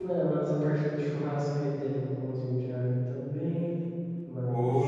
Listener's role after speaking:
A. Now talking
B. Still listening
A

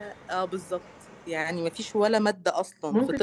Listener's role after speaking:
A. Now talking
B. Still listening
A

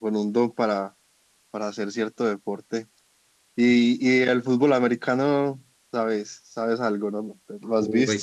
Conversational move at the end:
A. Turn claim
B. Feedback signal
A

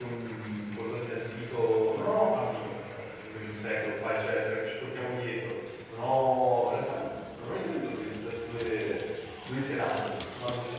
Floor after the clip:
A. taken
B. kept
B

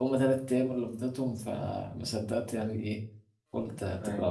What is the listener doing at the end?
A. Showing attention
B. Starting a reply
A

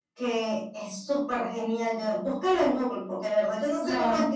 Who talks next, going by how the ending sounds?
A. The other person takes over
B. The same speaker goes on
B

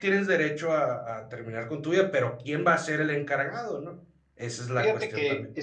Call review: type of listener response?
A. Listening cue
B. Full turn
B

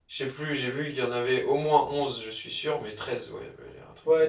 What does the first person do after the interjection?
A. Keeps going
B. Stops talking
B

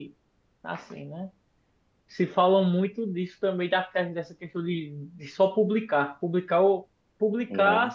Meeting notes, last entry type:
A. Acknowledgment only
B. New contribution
A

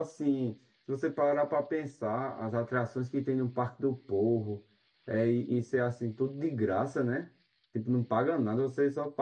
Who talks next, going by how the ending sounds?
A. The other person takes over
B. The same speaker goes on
B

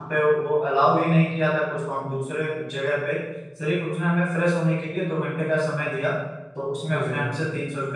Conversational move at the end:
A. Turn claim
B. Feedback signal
B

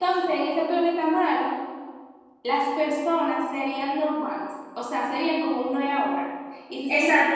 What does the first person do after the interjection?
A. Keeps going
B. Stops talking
B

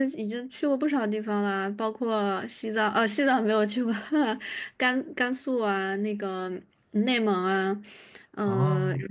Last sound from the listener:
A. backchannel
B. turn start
A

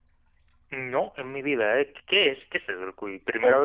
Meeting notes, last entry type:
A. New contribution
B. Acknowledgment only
A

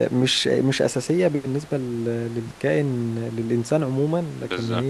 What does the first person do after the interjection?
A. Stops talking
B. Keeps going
B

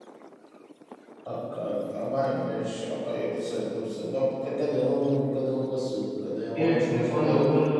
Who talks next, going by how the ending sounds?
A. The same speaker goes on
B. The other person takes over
B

